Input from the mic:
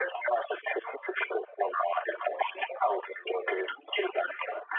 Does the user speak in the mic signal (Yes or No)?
No